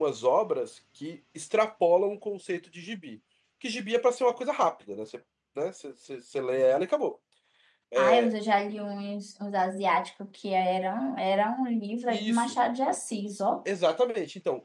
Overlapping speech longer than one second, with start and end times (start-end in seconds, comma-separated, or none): none